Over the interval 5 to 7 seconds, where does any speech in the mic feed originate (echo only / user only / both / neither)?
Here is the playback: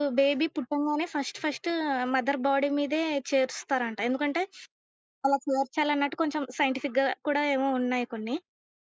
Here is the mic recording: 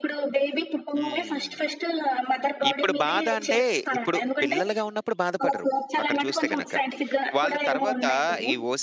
both